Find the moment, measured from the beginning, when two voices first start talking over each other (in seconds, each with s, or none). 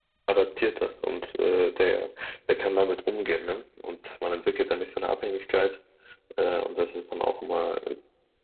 none